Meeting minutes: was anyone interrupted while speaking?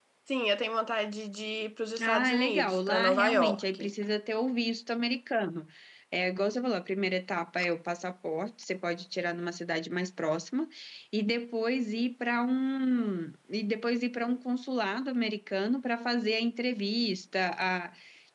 Yes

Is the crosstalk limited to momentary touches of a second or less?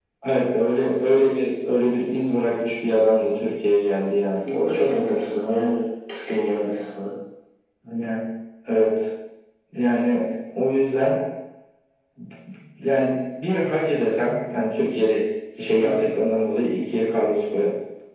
Yes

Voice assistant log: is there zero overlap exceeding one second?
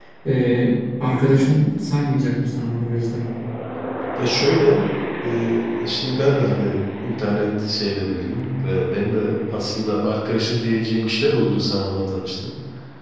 Yes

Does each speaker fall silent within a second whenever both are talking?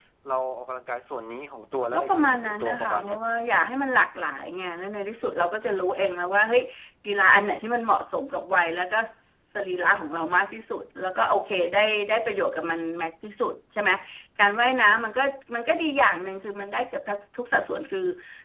No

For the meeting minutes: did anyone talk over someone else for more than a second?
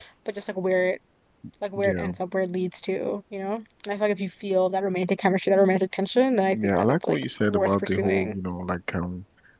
Yes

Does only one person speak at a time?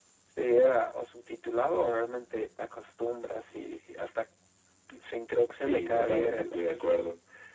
No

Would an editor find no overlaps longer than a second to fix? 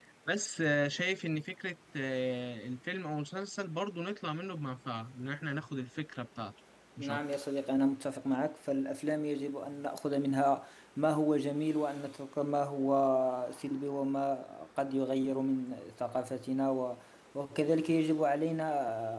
Yes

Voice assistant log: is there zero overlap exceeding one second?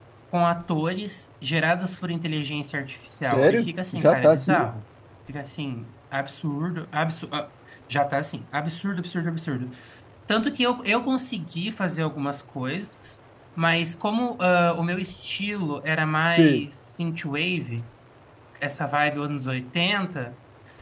No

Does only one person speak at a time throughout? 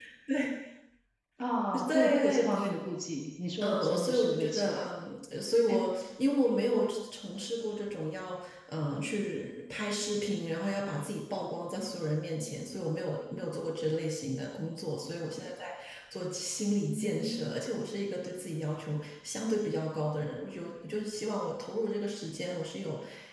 No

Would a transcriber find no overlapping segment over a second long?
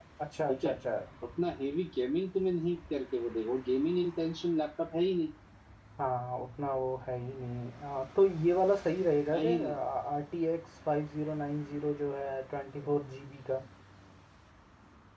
Yes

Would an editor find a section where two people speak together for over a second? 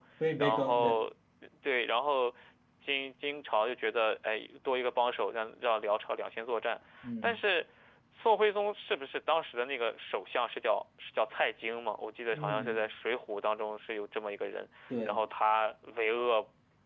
No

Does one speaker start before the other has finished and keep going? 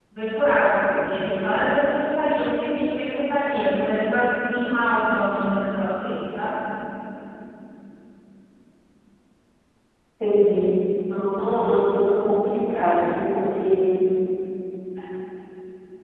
No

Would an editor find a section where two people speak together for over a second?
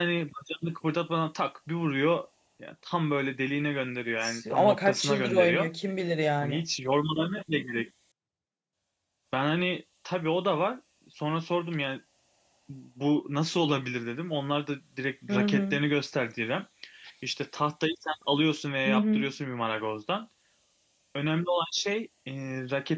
Yes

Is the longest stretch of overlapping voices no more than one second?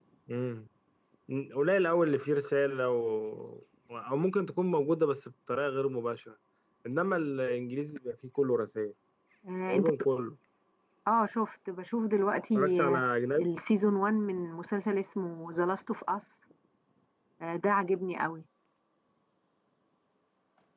Yes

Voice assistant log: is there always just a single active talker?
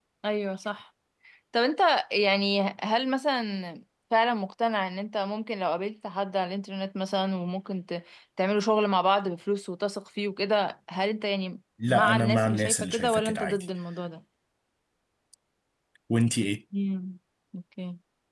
No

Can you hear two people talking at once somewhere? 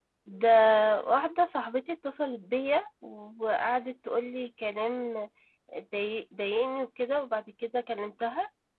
No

